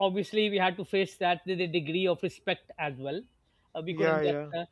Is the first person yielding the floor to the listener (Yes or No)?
No